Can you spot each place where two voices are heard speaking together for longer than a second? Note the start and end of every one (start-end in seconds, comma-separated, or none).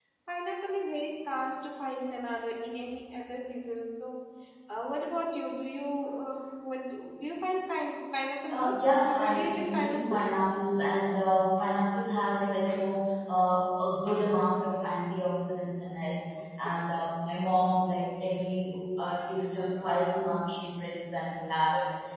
8.5-10.2